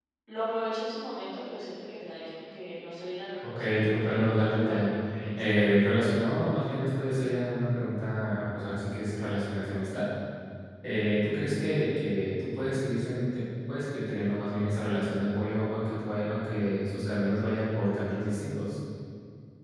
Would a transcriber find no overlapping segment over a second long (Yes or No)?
No